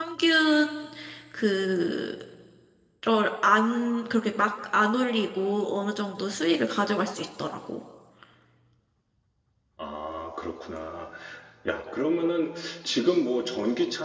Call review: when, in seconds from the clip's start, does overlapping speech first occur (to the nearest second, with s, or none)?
none